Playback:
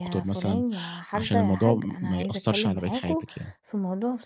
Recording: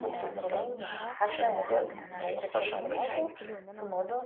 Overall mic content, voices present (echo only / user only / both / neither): both